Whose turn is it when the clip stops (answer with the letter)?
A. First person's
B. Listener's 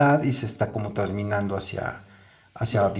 A